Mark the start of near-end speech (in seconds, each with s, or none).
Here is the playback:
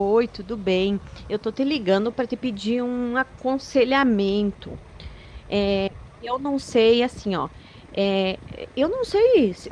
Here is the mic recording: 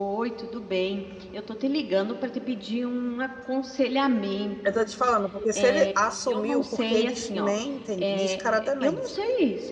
4.6 s